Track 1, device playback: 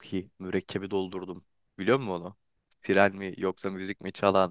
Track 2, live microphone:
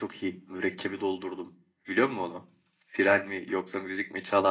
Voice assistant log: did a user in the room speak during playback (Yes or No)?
No